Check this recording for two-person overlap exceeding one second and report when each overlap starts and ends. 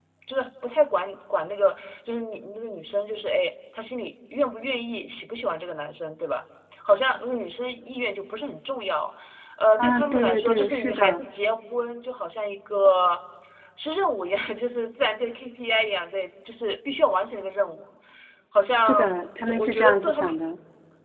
9.8-11.2, 18.8-20.3

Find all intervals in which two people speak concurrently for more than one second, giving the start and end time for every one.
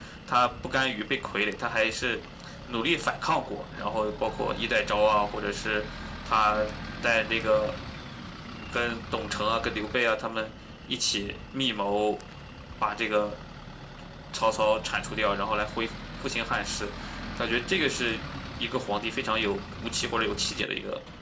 none

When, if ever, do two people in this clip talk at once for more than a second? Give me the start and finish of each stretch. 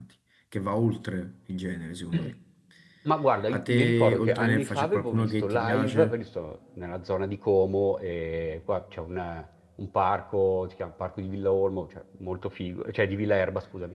3.5-6.2

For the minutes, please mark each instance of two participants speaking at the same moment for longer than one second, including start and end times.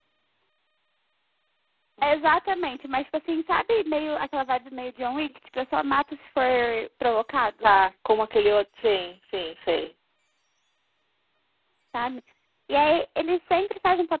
none

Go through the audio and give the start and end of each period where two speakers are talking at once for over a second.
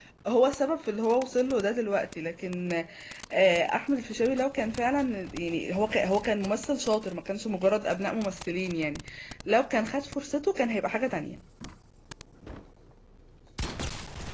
none

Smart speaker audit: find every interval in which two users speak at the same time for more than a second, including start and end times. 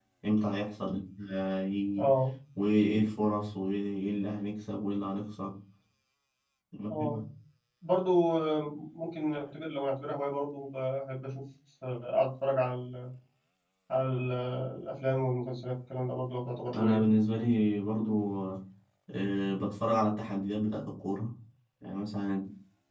none

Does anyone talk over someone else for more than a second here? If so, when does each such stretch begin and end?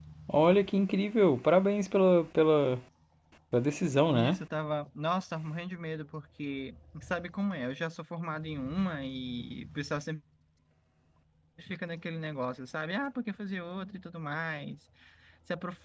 none

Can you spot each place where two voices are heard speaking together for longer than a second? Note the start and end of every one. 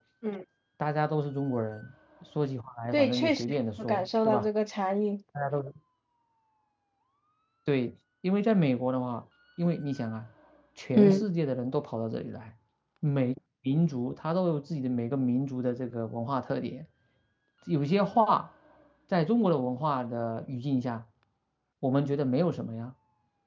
2.9-4.5

